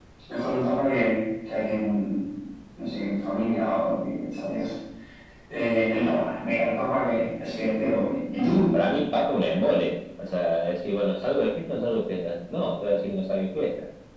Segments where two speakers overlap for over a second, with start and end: none

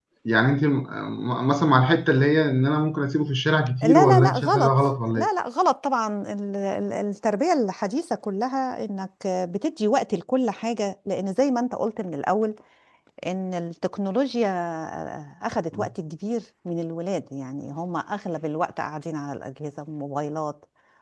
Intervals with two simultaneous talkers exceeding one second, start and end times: 3.8-5.3

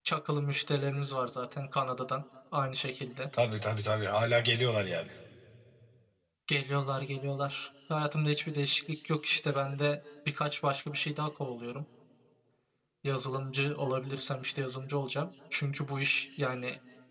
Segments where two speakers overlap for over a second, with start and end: none

